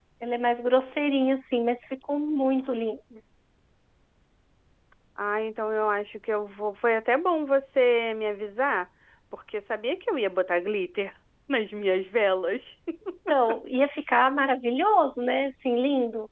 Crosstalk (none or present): none